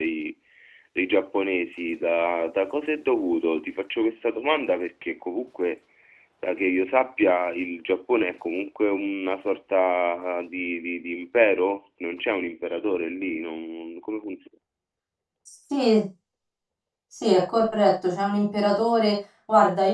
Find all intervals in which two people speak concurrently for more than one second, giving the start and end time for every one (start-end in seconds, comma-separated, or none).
none